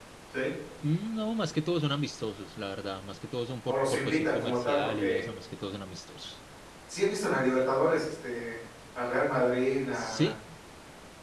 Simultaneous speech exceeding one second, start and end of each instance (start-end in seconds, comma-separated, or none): 3.7-5.2